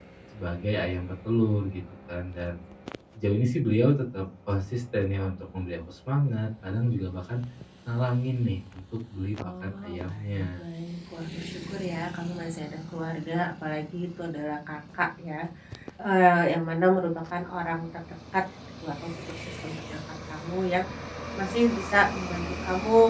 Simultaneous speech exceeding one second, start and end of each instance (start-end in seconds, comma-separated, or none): 9.4-10.6